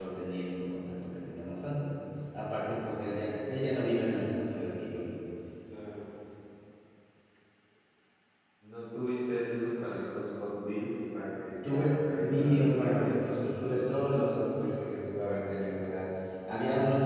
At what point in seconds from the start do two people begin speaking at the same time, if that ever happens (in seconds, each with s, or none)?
11.6 s